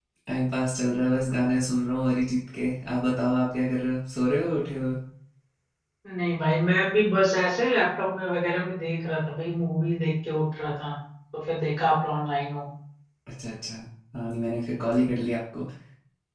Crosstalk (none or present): none